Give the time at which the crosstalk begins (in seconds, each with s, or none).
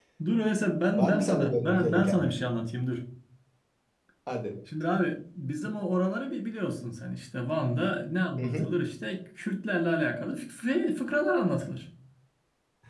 1.0 s